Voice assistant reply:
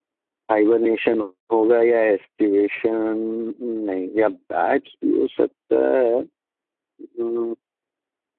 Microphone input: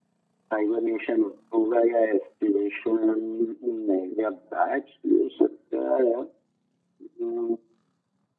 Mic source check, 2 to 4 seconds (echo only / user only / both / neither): echo only